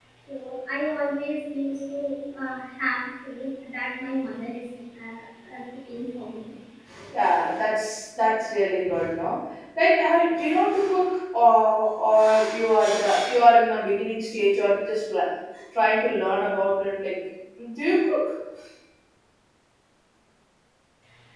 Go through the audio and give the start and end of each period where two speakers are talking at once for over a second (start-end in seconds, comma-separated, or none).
none